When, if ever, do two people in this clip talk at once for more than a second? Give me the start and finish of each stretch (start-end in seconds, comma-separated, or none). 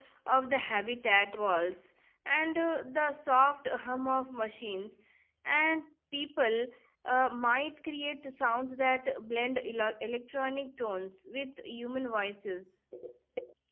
none